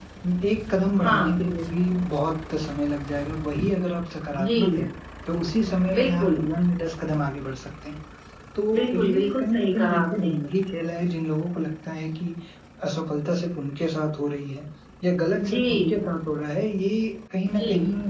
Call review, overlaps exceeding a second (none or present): present